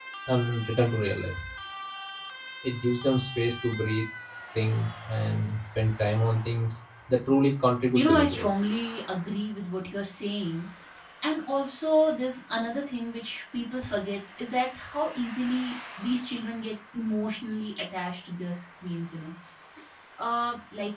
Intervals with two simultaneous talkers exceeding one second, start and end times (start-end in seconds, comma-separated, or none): none